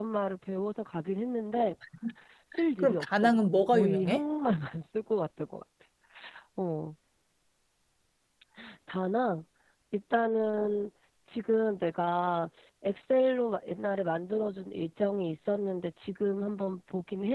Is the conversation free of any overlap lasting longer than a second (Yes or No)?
No